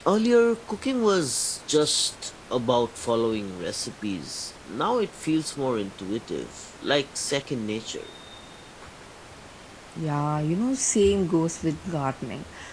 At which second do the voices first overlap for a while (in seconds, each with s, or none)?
none